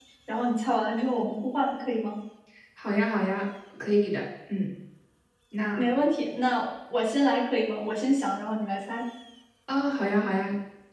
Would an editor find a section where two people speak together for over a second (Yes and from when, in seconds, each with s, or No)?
No